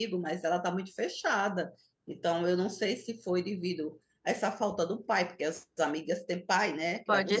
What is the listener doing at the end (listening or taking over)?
taking over